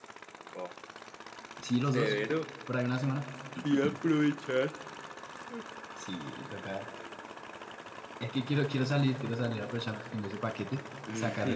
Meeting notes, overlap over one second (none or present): none